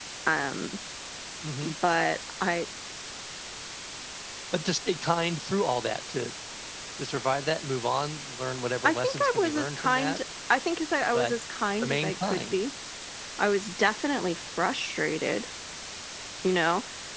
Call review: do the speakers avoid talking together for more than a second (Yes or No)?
No